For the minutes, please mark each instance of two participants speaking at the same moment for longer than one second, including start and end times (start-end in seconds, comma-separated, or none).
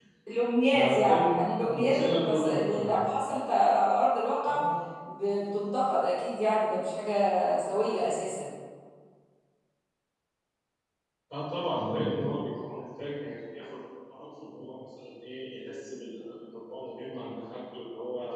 0.7-3.0